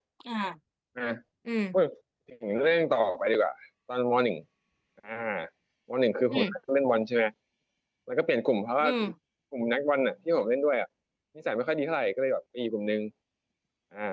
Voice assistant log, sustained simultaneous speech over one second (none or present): none